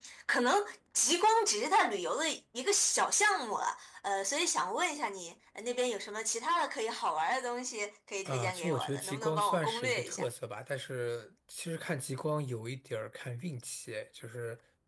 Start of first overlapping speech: 8.2 s

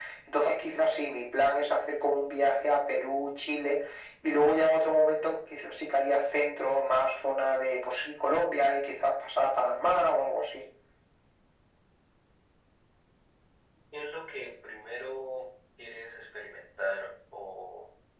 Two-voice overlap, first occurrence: none

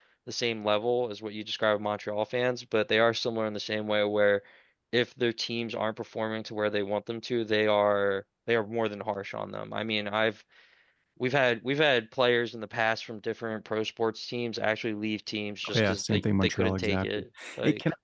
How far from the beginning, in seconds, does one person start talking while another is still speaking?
15.6 s

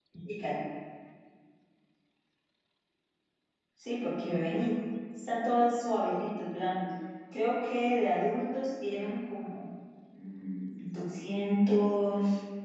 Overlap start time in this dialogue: none

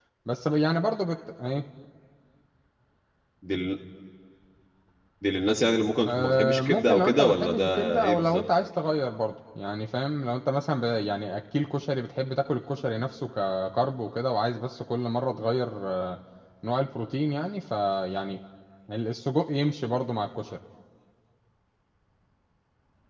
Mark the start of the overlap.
6.1 s

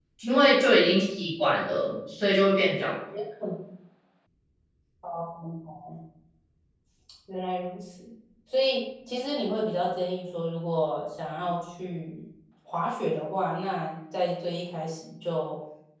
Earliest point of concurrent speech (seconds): none

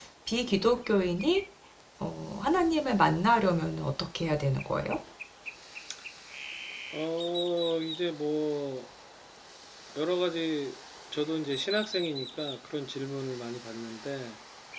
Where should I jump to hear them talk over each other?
none

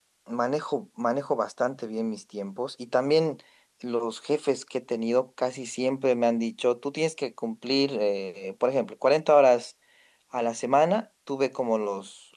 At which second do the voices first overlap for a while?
none

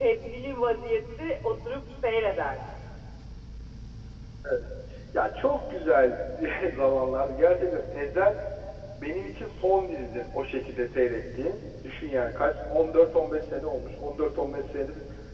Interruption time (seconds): none

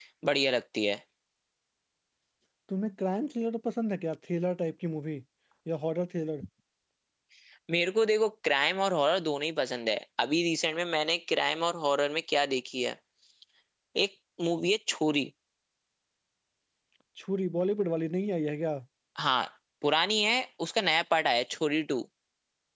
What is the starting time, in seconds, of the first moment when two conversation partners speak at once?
none

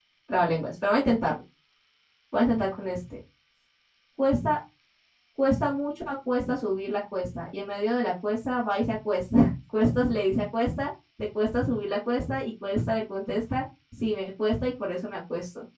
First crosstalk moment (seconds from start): none

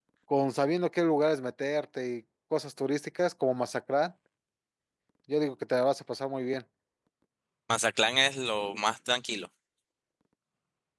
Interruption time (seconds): none

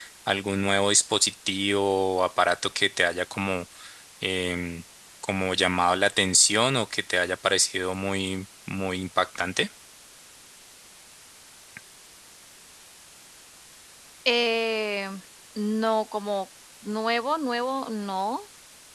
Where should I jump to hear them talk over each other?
none

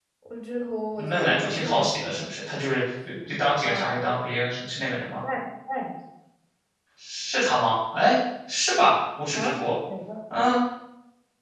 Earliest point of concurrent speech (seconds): 1.0 s

